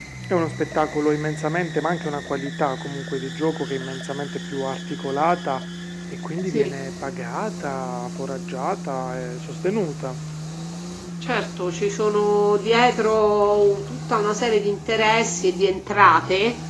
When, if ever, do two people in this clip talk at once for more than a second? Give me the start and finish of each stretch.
none

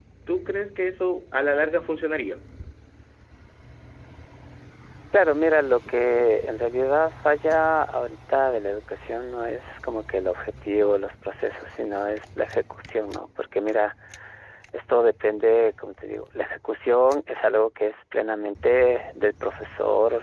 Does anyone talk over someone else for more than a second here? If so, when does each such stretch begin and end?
none

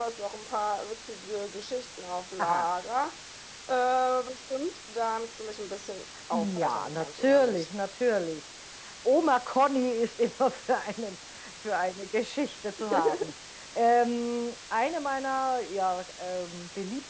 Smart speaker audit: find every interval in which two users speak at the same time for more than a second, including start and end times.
6.3-7.7

